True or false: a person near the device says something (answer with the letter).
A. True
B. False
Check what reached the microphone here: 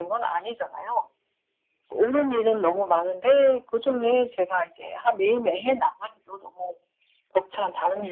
B